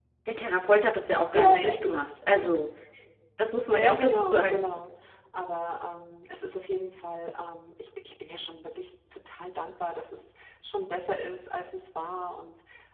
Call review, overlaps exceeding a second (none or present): present